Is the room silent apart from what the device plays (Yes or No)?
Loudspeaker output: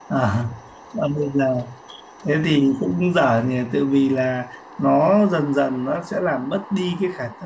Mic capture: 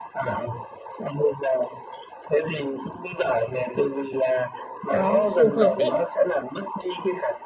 No